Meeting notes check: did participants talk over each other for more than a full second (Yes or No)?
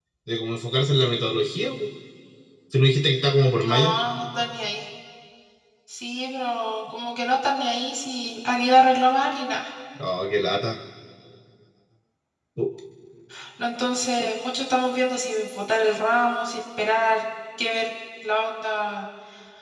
No